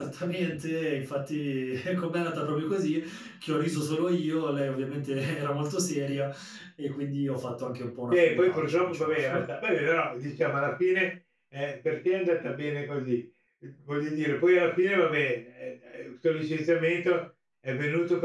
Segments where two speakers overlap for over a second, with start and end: 8.1-9.4

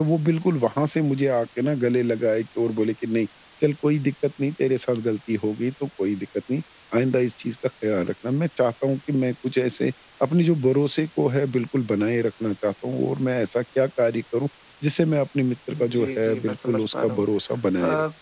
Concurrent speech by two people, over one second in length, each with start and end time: 15.7-17.2

